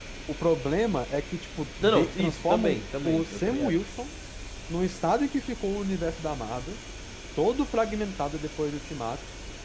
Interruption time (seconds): 1.8 s

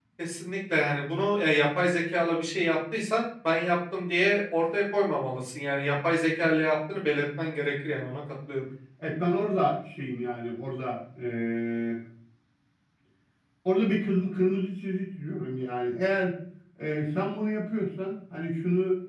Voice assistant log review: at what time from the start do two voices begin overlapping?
none

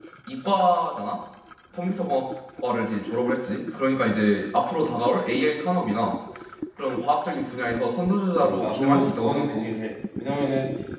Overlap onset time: 8.4 s

